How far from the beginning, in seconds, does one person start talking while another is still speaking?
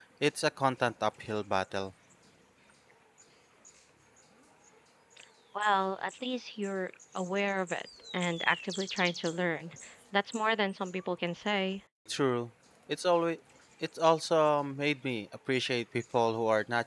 none

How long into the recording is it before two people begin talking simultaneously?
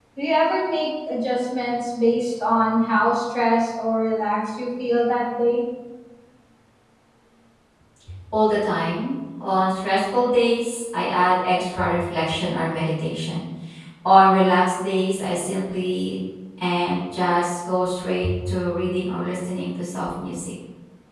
none

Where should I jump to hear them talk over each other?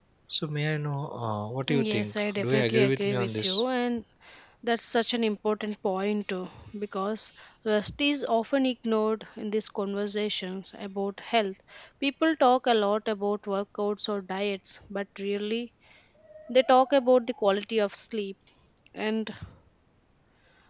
2 s

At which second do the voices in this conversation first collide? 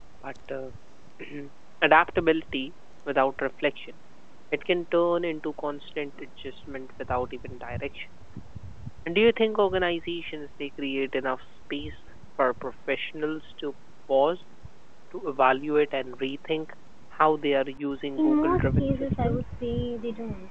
18 s

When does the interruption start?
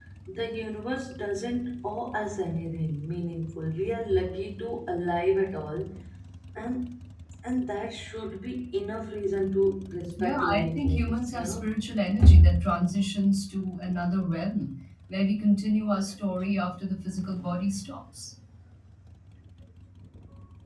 10 s

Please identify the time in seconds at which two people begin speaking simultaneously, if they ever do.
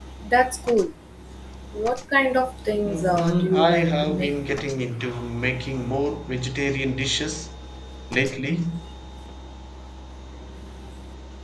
3 s

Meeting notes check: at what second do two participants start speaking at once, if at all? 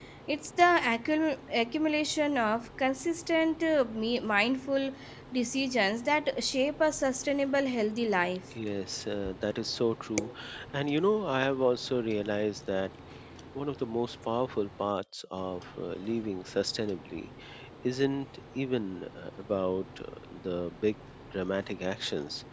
none

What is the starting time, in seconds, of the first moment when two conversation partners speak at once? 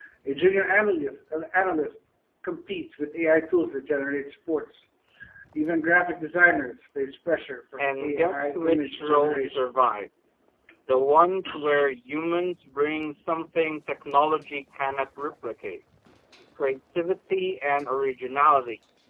8 s

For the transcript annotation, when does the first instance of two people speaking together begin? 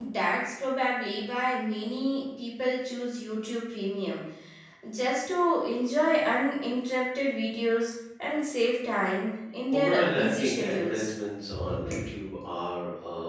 10 s

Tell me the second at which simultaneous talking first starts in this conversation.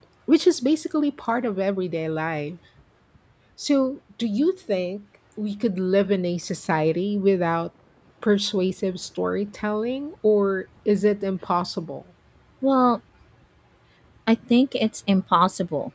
none

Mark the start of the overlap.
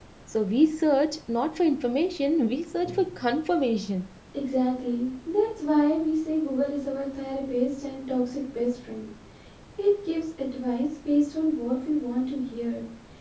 none

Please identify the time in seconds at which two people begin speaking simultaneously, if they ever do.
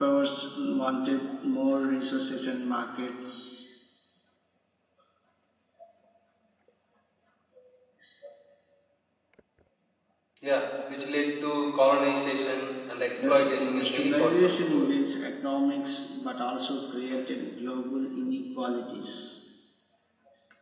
13 s

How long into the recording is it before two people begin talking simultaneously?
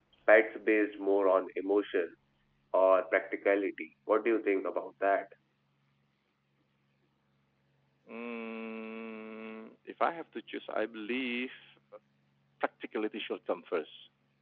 none

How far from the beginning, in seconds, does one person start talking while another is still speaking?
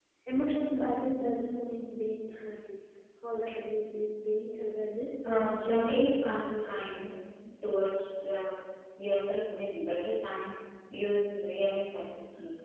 5 s

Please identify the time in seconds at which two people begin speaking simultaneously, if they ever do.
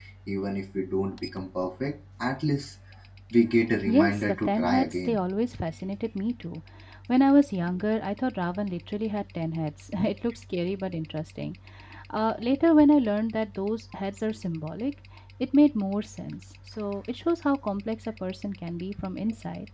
4 s

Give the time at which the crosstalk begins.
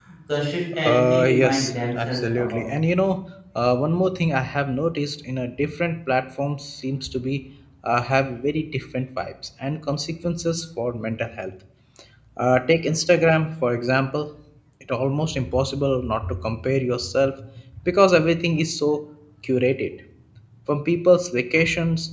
1 s

